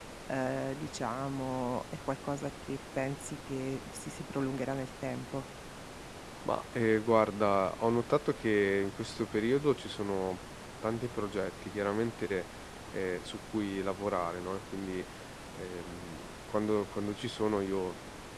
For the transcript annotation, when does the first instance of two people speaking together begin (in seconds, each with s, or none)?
none